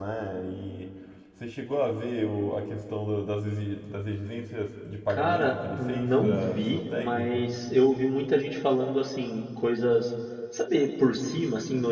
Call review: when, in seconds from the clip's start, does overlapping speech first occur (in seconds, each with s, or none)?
5.1 s